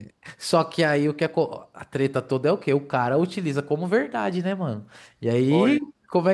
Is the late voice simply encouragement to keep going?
Yes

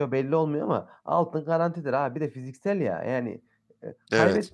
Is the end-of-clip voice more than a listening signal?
No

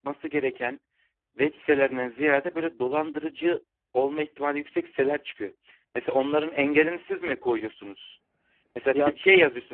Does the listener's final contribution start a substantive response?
No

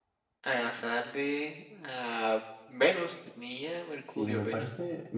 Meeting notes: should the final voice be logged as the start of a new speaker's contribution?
Yes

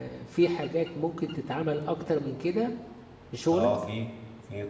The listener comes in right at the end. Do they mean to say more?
Yes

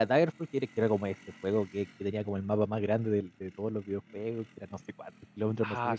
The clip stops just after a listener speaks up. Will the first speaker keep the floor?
No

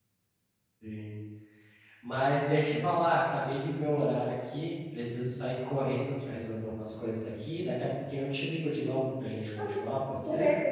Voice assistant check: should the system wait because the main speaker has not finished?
No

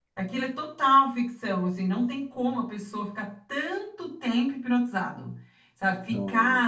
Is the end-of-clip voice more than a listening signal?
No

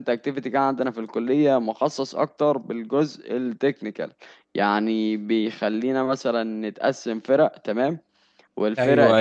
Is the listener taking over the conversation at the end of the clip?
No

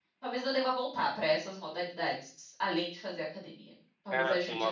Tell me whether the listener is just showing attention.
No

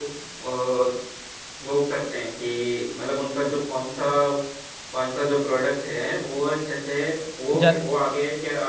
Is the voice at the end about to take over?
No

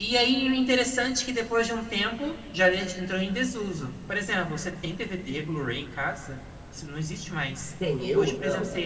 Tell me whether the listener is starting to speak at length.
Yes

